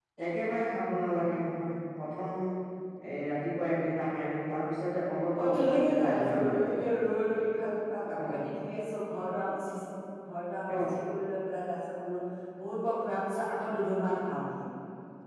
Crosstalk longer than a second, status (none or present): present